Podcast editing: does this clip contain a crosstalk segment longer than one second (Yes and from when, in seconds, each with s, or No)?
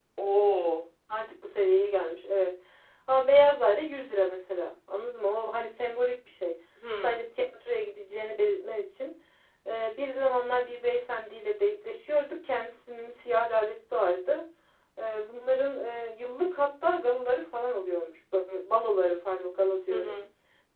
No